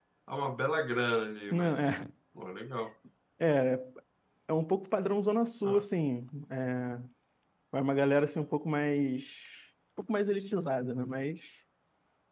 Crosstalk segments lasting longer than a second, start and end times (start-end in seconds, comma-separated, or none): none